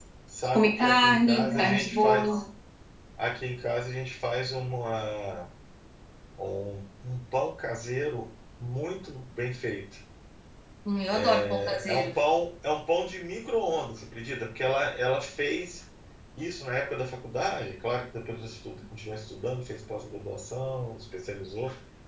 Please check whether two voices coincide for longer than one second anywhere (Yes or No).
Yes